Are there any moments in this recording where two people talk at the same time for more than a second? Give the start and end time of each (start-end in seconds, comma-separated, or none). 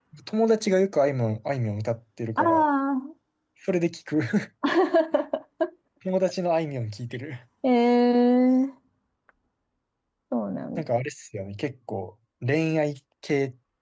none